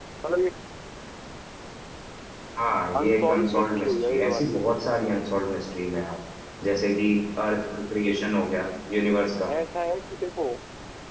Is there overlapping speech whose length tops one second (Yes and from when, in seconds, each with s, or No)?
Yes, from 3.0 s